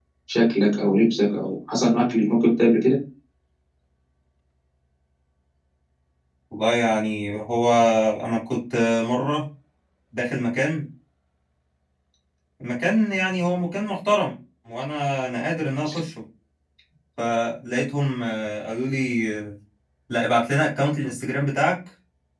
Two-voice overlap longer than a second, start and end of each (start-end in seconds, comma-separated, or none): none